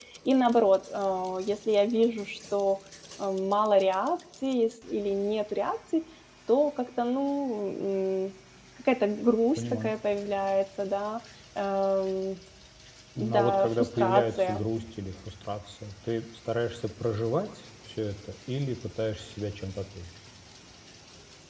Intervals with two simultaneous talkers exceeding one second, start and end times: 13.2-14.6

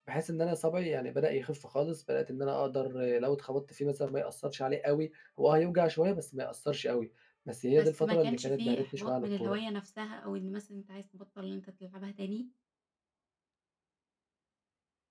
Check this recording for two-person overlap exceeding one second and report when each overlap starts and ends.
7.7-9.6

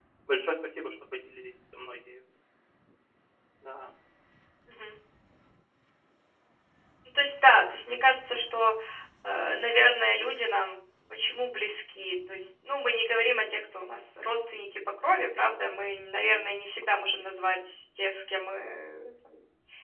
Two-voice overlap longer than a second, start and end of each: none

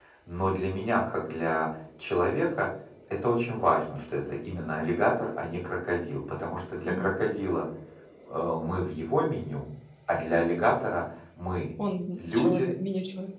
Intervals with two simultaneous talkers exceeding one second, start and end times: none

